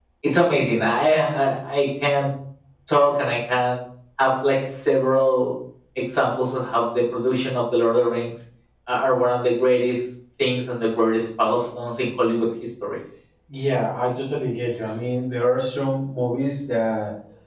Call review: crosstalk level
none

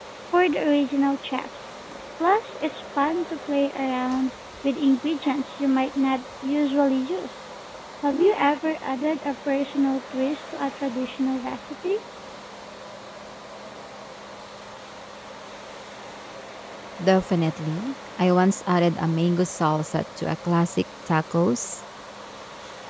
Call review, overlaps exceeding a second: none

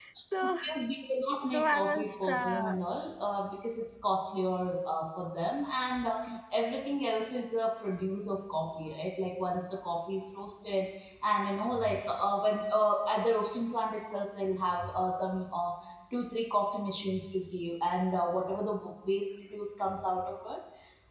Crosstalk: present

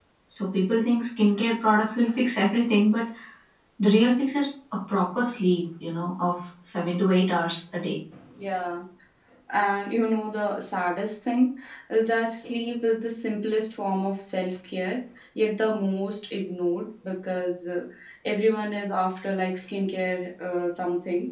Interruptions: none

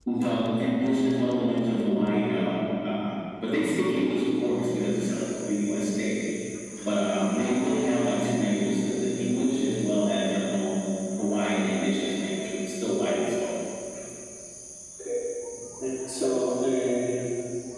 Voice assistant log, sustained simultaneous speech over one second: none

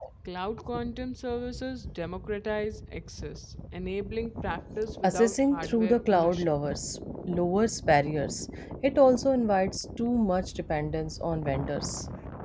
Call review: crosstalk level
present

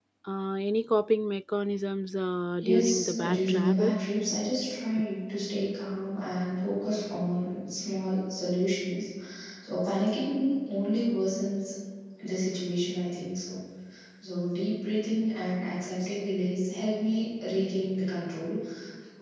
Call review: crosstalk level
present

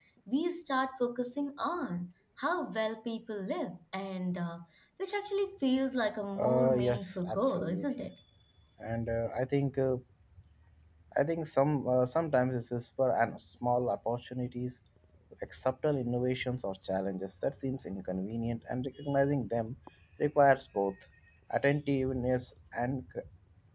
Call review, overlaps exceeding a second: present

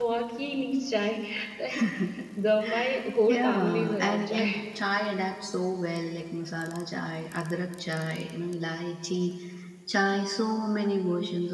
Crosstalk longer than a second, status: present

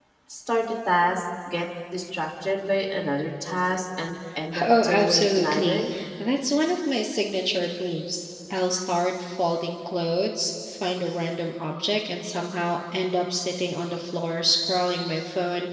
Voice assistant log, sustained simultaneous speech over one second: present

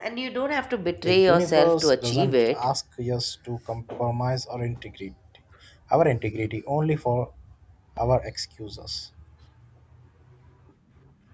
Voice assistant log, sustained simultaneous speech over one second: present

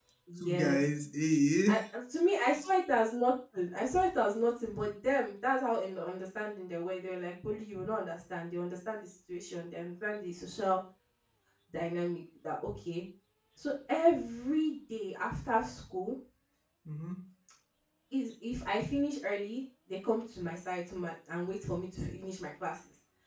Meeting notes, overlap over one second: none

